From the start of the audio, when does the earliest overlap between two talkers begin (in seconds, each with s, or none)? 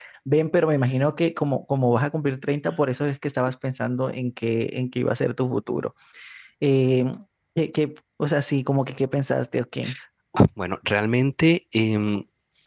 none